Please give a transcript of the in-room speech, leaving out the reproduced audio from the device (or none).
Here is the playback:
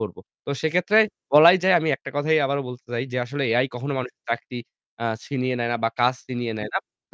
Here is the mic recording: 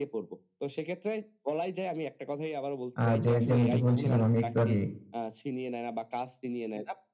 আ যে, যেমনটি বলছিলাম আমি একটু আগে